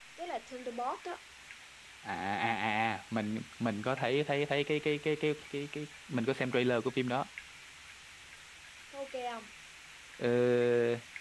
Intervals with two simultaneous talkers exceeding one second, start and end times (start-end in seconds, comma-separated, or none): none